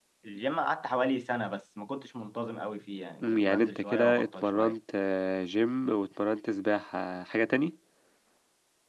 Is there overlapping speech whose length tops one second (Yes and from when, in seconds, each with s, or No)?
Yes, from 3.2 s